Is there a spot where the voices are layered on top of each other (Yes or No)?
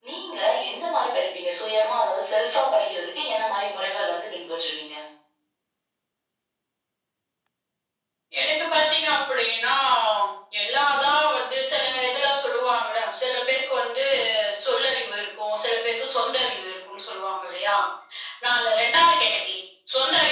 No